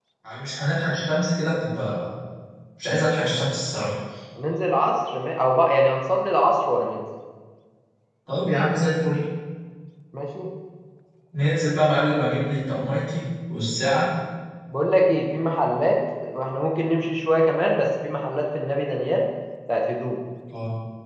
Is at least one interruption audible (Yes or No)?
No